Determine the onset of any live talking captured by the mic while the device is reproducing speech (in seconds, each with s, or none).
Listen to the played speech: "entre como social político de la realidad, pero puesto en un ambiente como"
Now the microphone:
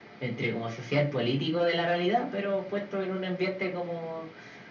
none